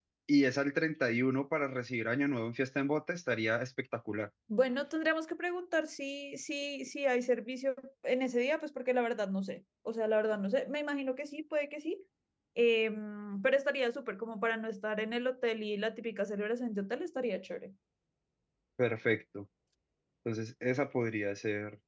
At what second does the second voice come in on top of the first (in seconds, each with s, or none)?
none